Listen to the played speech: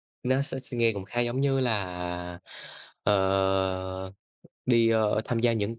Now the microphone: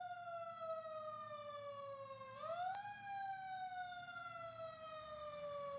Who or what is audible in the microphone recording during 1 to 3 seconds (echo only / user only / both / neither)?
neither